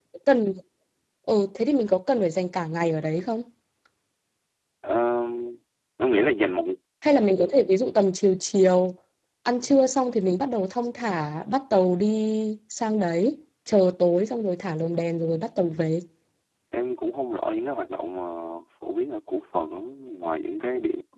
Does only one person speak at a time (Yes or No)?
Yes